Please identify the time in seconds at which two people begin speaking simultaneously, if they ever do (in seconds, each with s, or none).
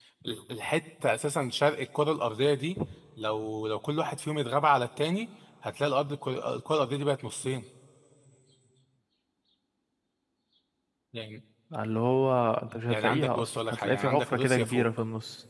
12.9 s